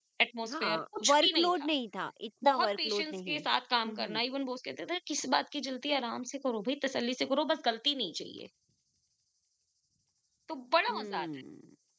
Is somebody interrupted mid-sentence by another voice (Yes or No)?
Yes